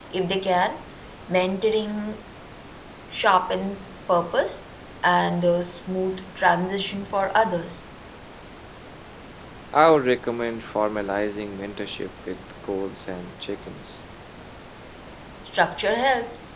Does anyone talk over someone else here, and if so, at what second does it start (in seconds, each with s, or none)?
none